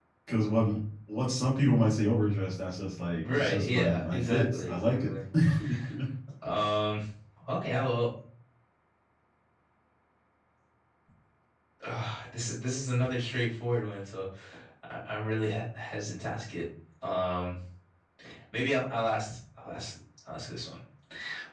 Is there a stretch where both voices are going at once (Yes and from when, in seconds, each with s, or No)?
Yes, from 3.2 s